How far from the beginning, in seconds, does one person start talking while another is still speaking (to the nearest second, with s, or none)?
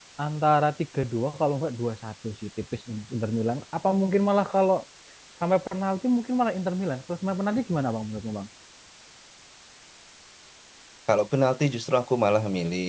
none